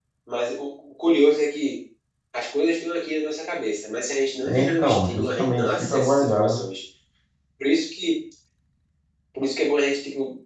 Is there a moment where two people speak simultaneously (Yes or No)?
Yes